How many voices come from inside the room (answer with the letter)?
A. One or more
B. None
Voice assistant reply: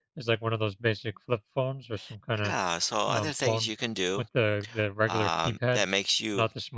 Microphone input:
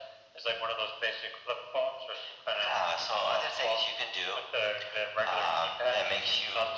B